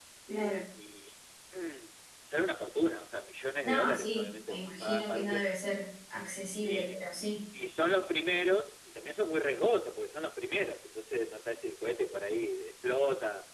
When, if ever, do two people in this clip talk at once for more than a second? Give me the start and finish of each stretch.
3.6-5.5

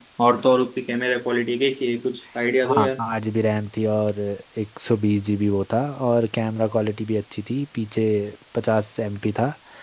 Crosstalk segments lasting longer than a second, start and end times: none

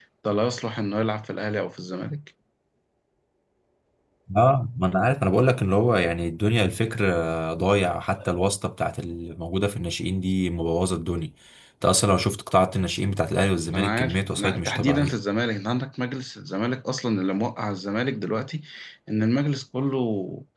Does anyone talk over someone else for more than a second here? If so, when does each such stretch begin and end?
13.7-15.2

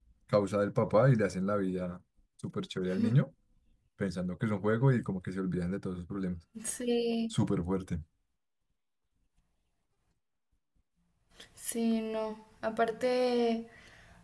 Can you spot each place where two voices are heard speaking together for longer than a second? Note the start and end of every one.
none

